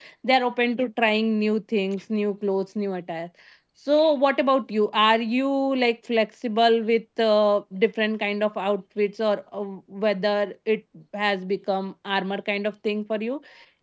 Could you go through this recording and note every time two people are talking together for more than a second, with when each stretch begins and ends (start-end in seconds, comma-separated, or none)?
none